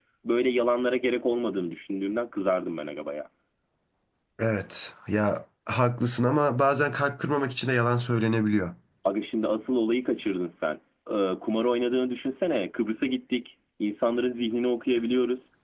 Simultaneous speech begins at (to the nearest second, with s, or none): none